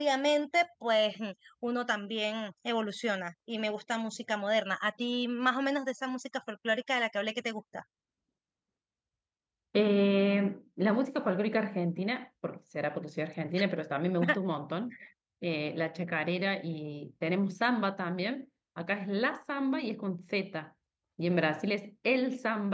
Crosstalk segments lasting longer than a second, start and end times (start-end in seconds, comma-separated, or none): none